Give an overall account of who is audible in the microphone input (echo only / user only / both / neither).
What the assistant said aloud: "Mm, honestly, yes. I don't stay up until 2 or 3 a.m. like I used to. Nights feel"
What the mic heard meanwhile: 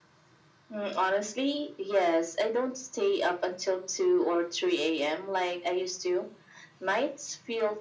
echo only